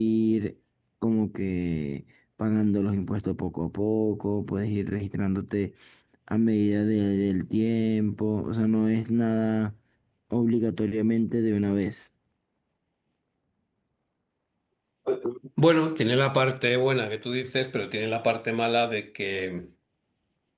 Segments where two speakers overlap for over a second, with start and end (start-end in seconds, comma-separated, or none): none